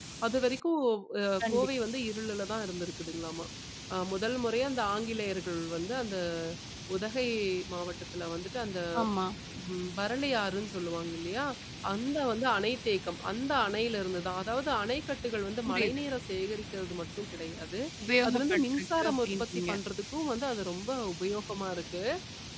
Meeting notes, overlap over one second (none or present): present